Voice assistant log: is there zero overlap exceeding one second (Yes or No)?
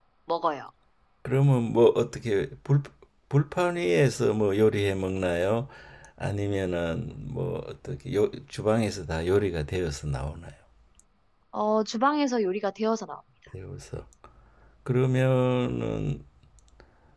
Yes